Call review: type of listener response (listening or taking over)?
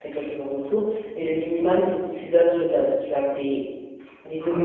taking over